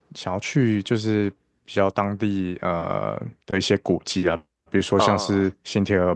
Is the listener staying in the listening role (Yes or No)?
Yes